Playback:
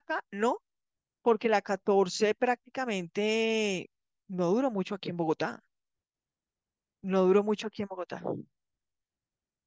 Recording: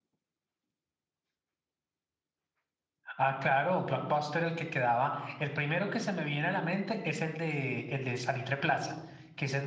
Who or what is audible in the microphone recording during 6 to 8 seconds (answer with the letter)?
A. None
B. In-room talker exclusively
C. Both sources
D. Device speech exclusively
B